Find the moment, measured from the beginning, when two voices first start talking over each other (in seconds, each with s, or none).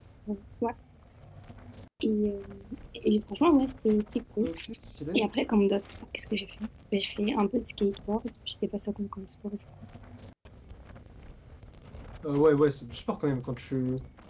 none